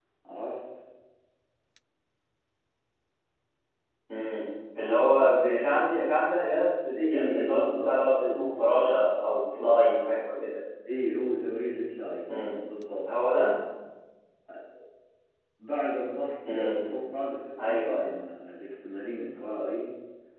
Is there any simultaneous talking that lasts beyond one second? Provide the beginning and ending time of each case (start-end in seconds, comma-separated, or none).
7.0-8.9